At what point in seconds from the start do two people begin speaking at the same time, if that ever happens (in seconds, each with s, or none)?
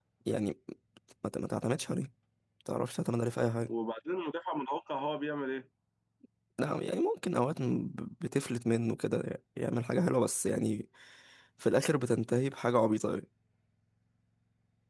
none